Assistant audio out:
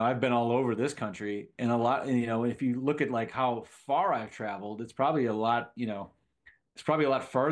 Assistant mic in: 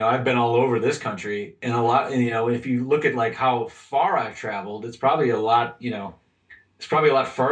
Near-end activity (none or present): none